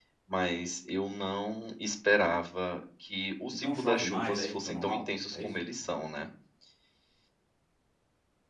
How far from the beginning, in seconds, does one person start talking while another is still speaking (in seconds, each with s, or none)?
3.5 s